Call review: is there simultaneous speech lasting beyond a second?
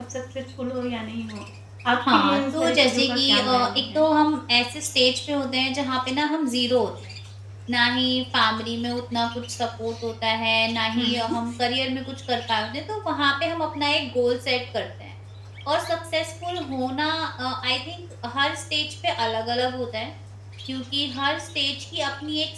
Yes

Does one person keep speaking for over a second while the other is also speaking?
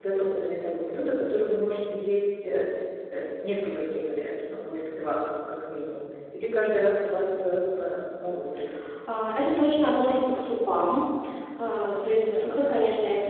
No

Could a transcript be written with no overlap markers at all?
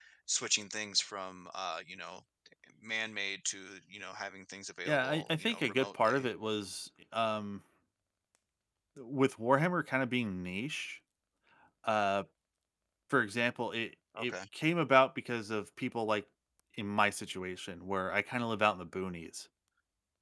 No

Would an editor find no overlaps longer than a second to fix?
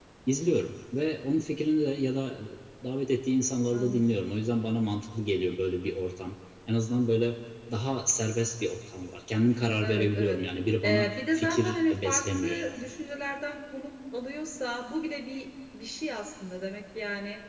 No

